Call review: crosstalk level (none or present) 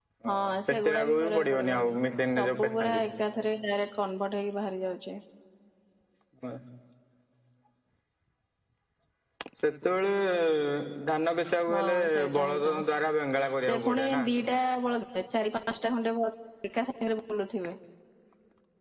present